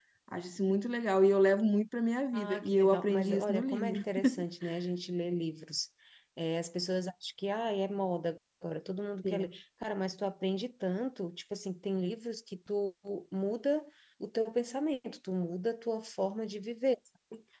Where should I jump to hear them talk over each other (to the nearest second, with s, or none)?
2 s